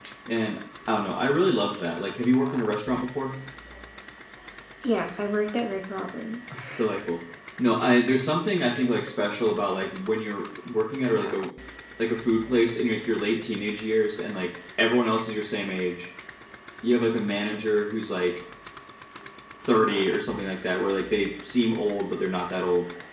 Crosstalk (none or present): none